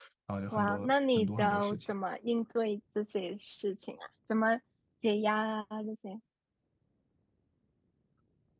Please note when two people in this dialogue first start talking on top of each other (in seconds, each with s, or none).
0.5 s